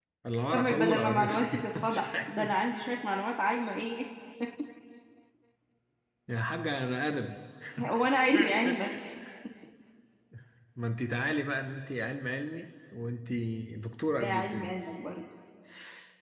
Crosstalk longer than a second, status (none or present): present